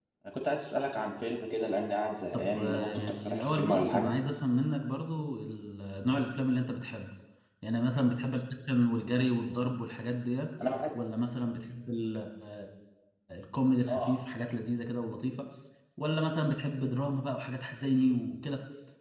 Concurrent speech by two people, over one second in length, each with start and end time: 2.3-4.1

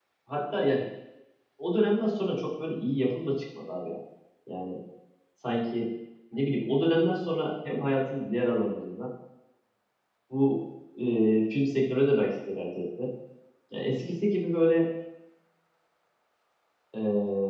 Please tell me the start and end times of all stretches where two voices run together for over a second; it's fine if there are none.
none

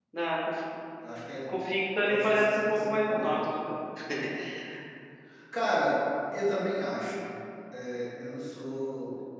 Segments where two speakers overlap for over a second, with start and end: 2.1-3.4

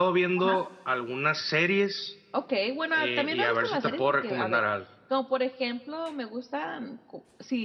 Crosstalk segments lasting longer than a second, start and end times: 2.9-4.6

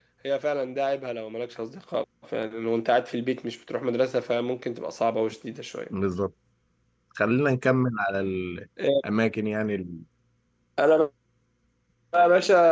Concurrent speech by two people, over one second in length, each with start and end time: none

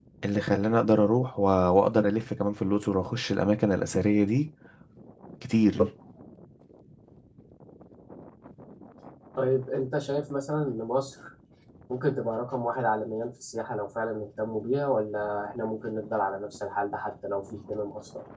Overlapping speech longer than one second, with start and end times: none

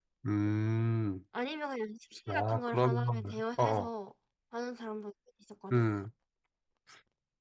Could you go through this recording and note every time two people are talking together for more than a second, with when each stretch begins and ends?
2.3-3.9

